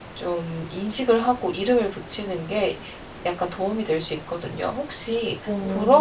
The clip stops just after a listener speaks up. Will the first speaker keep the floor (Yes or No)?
Yes